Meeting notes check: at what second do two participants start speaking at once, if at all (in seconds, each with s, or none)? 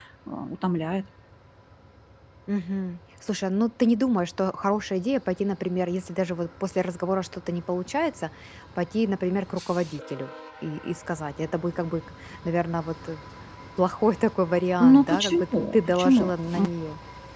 14.8 s